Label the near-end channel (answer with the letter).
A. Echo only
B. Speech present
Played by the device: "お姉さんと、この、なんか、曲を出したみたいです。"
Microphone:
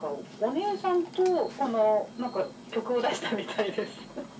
A